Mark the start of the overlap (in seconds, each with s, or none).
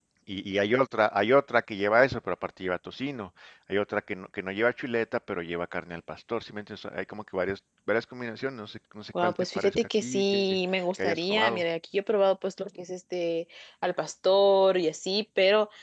9.2 s